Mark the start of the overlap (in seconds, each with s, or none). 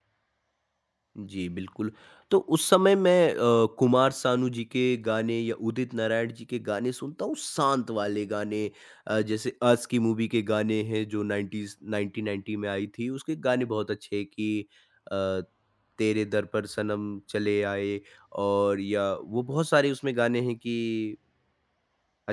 none